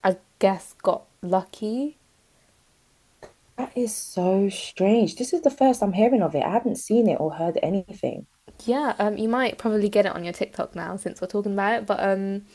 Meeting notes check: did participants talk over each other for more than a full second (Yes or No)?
No